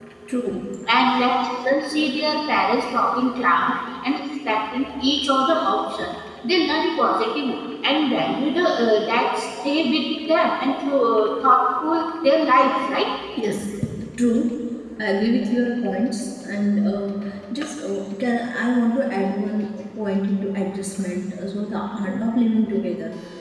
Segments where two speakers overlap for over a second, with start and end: none

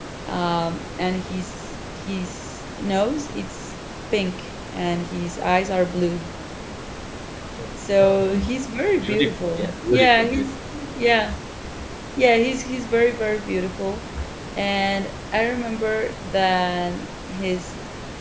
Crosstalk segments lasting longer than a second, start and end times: 9.0-10.5

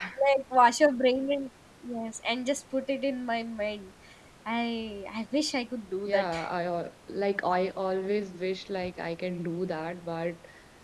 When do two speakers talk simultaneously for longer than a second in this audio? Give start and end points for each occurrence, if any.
none

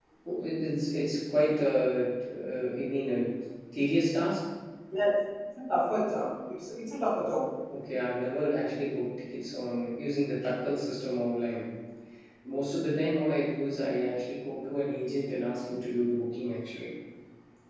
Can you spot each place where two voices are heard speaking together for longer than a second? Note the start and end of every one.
none

